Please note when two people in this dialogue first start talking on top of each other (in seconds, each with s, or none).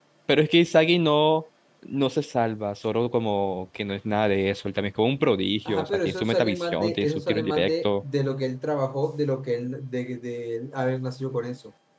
5.7 s